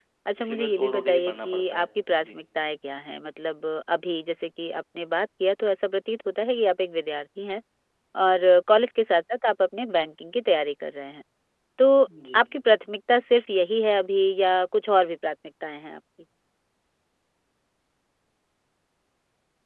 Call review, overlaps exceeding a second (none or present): present